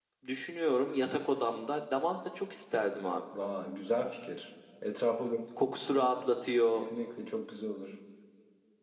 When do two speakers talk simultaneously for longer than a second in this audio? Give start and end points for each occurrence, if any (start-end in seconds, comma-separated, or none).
none